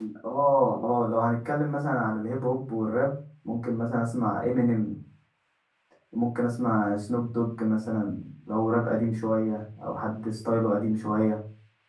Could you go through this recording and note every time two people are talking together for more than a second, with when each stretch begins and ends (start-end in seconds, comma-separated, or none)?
none